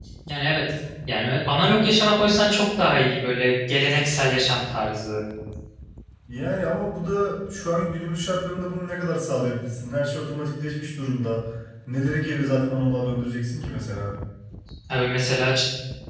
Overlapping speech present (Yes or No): No